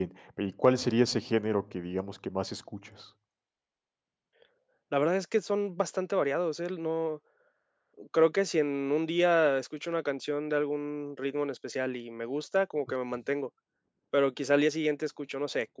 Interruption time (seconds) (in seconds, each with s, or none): none